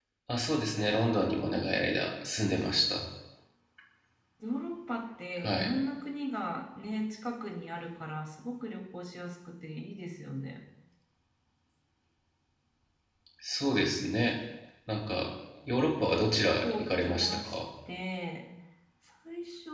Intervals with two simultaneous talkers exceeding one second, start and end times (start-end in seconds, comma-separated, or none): 16.0-17.6